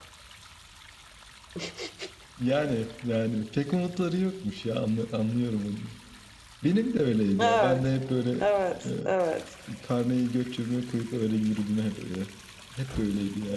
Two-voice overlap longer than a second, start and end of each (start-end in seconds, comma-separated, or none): none